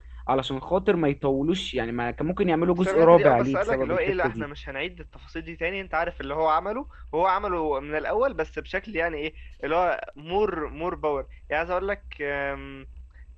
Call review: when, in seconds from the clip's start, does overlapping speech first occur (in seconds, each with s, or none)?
2.9 s